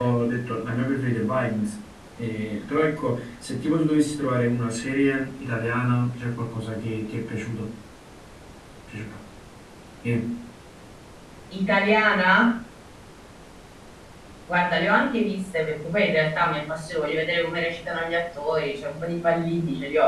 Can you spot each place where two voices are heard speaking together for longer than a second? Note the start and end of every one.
none

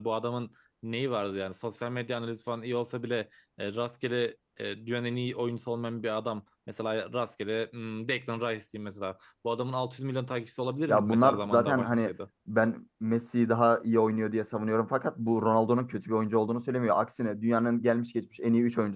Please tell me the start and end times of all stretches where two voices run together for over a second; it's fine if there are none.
10.9-12.1

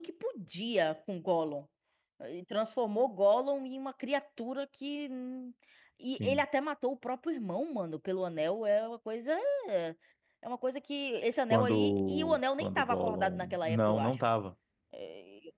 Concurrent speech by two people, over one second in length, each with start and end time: 11.5-14.2

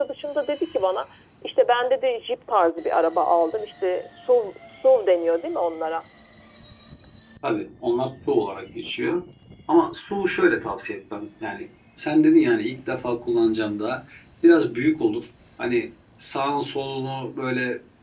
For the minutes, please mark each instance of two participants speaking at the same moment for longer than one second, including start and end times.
none

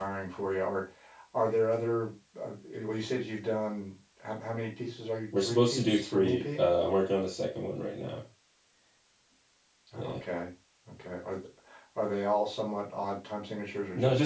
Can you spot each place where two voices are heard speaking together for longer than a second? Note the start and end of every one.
5.4-6.7

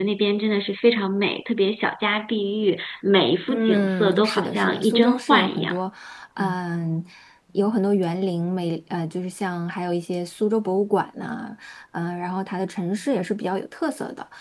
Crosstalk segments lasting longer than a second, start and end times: 3.5-5.8

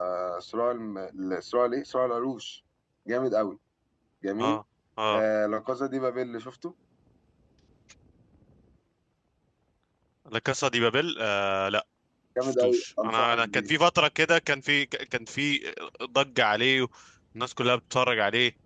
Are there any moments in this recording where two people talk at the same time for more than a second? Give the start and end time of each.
12.4-13.7

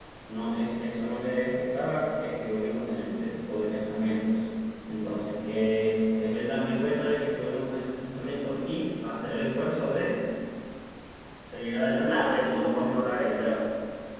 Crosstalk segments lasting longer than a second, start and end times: 12.0-13.5

